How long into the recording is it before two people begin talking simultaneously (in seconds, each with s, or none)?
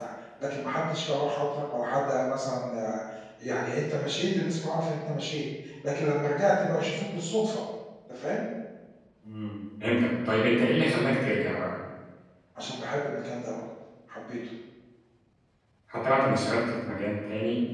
none